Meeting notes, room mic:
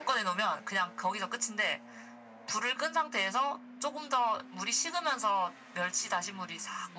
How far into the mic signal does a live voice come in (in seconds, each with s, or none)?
none